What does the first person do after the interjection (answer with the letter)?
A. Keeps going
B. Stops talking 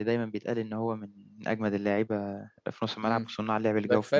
B